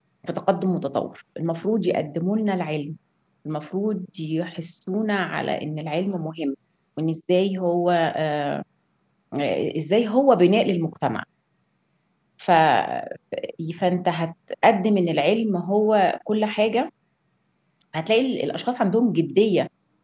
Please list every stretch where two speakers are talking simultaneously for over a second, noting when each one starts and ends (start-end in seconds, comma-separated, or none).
none